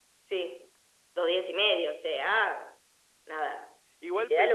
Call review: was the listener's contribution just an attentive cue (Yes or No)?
No